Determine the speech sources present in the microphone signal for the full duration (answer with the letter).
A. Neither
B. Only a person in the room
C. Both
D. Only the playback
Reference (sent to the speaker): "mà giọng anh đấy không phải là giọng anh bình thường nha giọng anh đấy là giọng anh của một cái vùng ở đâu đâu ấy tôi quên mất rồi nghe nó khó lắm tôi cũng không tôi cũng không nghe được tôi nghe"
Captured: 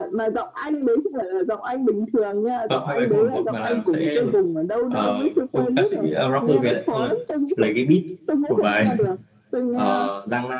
C